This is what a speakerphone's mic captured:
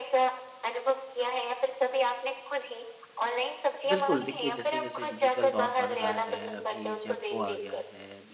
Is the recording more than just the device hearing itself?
Yes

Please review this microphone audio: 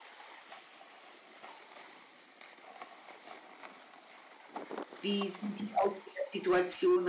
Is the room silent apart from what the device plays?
No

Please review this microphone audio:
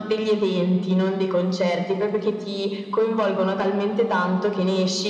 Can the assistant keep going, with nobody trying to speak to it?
Yes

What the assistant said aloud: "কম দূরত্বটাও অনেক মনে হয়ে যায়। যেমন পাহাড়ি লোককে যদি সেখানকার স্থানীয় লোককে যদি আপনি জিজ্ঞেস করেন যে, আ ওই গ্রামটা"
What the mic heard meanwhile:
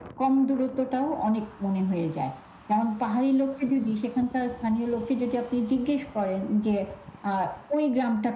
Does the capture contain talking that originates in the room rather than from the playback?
No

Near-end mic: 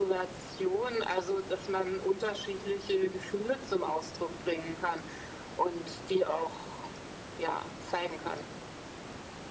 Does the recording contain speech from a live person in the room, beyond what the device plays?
No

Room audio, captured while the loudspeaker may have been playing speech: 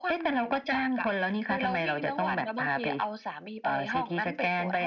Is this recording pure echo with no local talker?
Yes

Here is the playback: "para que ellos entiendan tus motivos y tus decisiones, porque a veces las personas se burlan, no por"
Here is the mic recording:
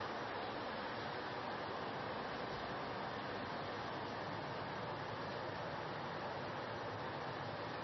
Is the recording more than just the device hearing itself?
No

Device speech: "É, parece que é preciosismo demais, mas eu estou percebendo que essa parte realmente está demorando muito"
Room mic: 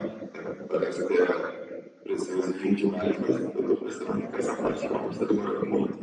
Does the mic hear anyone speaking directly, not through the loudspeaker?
Yes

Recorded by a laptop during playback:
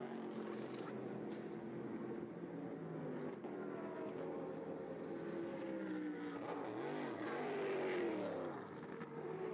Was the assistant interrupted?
No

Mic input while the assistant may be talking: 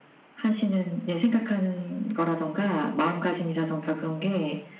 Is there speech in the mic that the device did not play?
No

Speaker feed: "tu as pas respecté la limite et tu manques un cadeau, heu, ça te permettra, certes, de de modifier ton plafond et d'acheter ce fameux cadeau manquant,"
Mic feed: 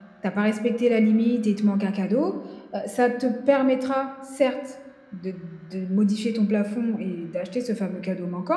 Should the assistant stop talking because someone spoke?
No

